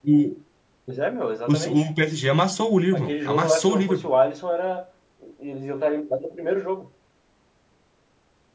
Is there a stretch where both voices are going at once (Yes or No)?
Yes